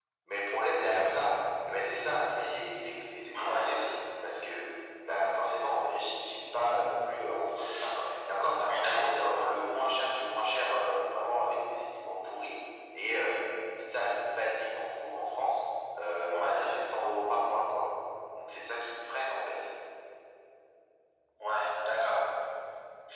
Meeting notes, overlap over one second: none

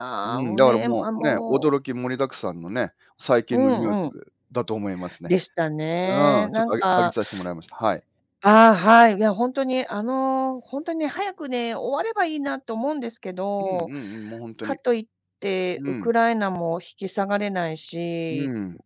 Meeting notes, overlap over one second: present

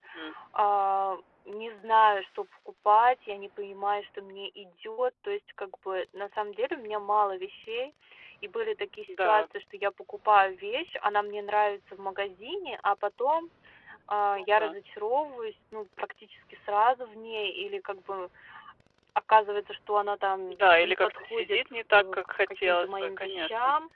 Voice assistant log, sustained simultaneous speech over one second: present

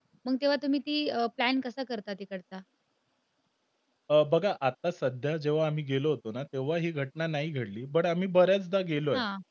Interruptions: none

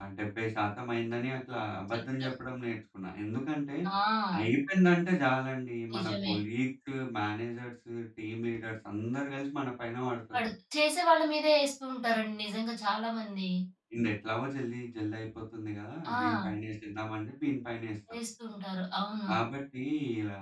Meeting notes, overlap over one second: none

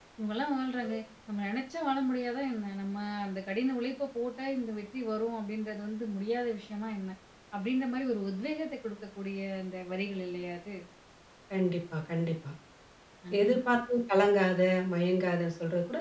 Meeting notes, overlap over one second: none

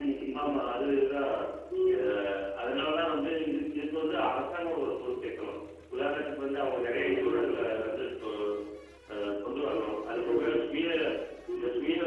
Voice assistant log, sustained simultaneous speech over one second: none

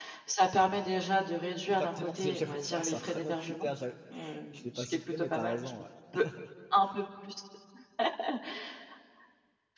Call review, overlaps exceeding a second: present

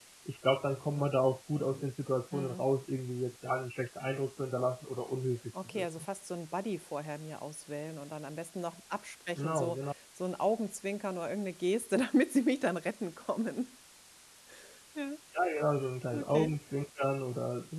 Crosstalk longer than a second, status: none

